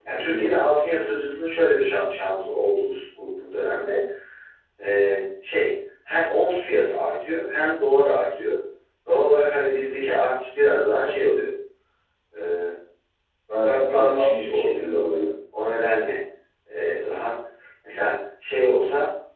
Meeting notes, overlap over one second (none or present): present